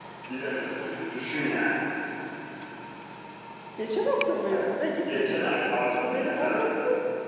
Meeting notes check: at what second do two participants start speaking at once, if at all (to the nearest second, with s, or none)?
5 s